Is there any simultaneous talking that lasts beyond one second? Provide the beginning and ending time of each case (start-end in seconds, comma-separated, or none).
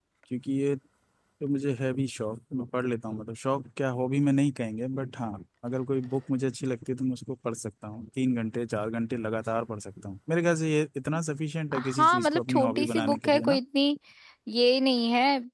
11.8-13.6